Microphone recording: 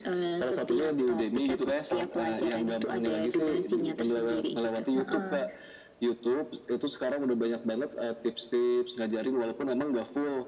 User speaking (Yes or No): Yes